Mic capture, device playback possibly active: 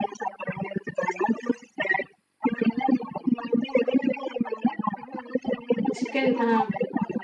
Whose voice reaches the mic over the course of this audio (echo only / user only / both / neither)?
both